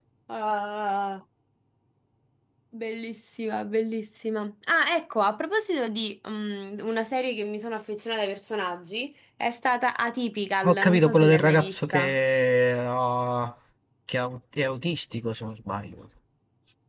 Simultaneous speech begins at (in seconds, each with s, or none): 10.6 s